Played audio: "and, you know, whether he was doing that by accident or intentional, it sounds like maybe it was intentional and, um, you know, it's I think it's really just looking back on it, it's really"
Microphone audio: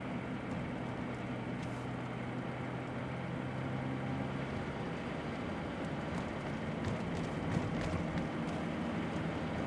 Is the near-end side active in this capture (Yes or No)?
No